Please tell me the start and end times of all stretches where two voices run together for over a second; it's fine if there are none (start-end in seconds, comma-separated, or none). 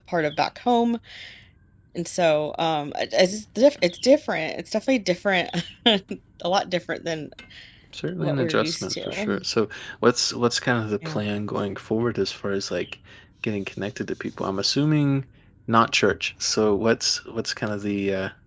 8.2-9.4